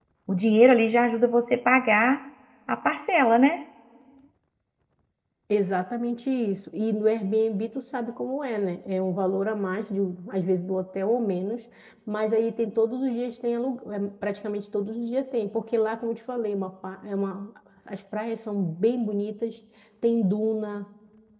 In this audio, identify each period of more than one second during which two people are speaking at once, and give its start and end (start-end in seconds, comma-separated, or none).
none